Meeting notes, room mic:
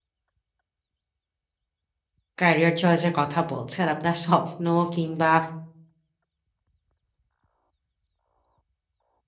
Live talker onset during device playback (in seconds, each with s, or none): 2.4 s